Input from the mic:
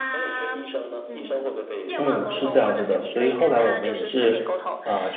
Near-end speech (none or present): present